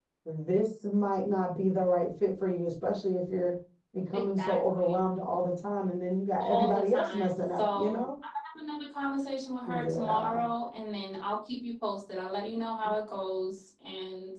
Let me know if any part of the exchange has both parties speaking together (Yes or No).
Yes